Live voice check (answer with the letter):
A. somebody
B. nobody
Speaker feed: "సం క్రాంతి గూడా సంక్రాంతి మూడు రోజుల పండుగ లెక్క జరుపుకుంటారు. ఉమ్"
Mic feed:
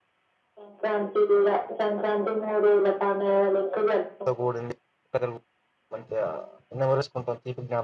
A